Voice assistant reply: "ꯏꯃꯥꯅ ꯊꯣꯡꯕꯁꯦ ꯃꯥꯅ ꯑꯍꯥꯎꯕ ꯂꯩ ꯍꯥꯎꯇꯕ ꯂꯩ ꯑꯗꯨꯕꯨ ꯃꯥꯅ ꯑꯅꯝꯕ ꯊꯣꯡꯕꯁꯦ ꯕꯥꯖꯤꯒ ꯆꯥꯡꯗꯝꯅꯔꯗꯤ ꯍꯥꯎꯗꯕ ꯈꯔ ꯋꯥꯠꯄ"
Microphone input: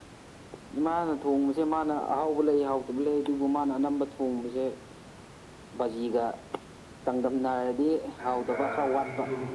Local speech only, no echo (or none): ꯑꯗꯨꯒ ꯗꯤꯅꯨ